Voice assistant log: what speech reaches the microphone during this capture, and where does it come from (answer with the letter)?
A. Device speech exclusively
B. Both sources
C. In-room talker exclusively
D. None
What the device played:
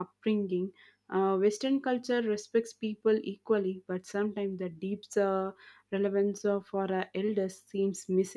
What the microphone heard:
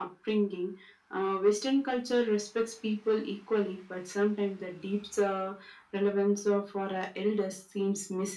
A